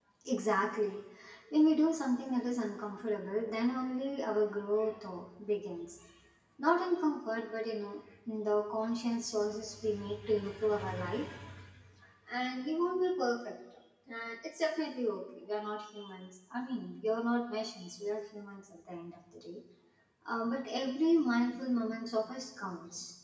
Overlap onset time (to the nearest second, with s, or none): none